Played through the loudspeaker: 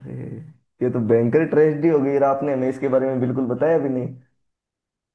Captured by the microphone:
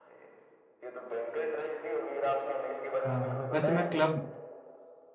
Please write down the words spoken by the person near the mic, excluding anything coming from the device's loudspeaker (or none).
हाँ हाँ वैसे मैं क्लब